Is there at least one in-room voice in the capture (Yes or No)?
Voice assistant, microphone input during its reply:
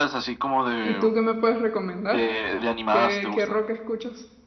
Yes